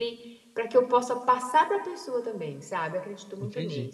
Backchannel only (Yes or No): No